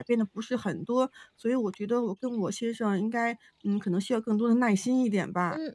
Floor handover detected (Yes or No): Yes